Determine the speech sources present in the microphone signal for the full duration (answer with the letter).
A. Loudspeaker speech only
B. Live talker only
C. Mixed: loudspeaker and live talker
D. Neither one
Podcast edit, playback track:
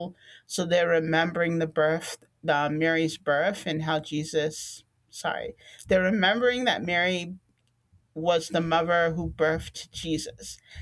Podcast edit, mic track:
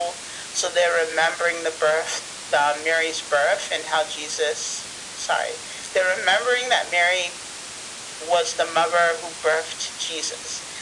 A